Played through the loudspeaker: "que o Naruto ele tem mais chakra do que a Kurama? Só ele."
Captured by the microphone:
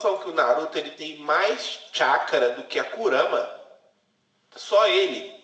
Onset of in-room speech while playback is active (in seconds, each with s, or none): none